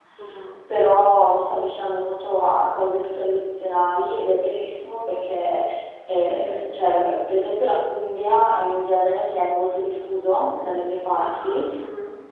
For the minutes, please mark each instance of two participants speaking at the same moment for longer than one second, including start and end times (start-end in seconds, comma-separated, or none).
none